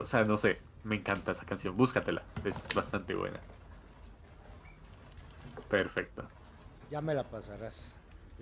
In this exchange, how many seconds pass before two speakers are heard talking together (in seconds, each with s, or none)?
none